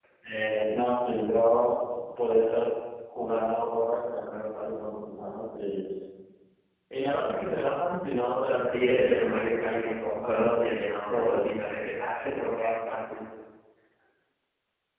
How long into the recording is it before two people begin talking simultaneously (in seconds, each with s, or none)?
8.7 s